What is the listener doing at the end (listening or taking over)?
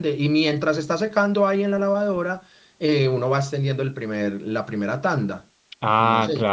taking over